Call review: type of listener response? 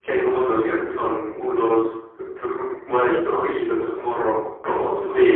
taking over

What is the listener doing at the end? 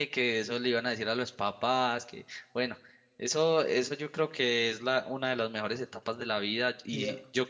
listening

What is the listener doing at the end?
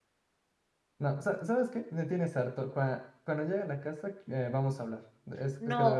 taking over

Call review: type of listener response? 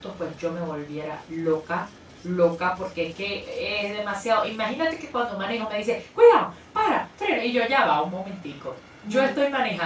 listening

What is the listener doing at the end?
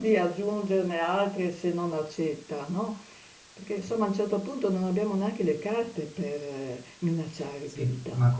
taking over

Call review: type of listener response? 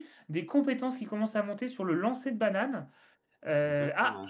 listening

